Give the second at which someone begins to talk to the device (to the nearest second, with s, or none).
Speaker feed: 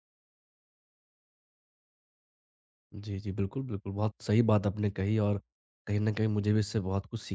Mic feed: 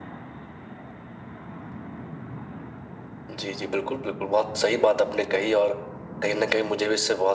none